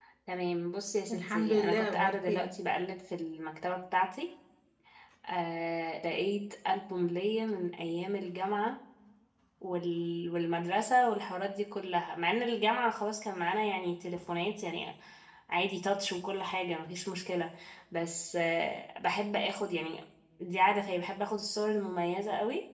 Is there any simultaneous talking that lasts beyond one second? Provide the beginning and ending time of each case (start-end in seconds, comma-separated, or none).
1.1-2.5